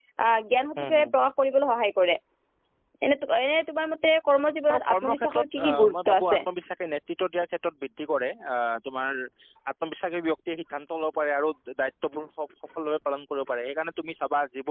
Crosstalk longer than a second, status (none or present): present